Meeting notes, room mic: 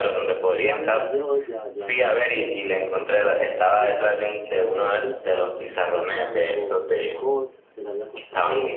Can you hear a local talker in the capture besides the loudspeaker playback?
Yes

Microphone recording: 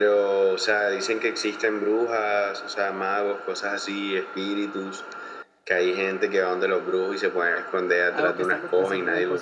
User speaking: Yes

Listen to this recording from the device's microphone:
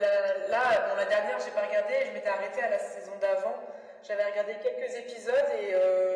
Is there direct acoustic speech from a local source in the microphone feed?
No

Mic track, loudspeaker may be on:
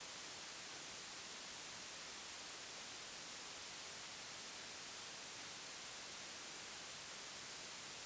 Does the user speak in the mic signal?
No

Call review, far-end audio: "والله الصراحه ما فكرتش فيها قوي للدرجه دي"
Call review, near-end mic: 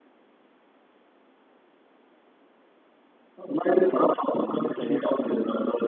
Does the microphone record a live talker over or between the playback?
Yes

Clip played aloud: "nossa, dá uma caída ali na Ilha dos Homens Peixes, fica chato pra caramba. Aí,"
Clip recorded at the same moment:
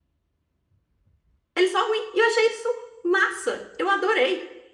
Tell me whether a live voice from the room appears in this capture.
Yes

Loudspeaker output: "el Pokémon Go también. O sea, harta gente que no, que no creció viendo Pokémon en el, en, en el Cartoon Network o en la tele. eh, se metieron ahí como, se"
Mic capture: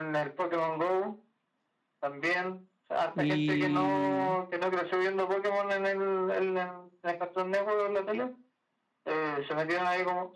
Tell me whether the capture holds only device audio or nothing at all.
No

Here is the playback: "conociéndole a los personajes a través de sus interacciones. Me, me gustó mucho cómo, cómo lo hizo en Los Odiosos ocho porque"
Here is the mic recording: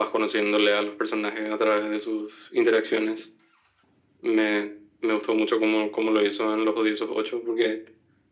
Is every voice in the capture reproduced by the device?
Yes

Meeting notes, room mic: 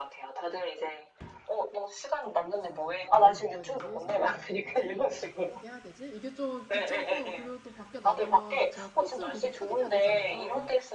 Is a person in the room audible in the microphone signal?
Yes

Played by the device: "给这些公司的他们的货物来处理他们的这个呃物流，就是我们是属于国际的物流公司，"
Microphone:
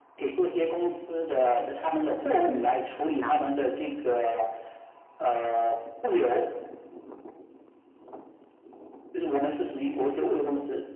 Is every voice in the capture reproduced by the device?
No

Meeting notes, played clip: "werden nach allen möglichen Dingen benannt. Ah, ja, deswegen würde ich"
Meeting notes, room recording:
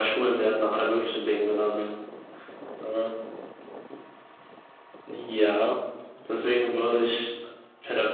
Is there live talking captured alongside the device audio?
No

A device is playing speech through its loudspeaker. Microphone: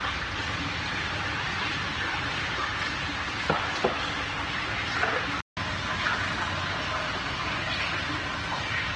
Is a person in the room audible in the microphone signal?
No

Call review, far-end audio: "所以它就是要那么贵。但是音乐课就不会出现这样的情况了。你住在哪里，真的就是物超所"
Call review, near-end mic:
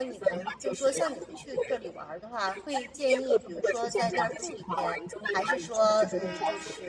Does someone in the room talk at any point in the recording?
Yes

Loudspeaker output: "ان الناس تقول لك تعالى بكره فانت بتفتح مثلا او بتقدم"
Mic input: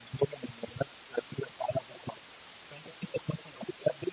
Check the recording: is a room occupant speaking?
No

